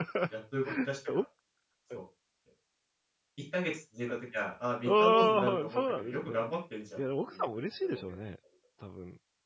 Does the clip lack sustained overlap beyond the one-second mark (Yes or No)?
No